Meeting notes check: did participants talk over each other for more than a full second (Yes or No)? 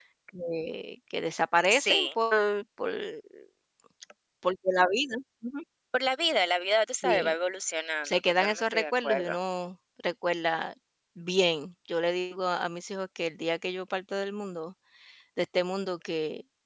Yes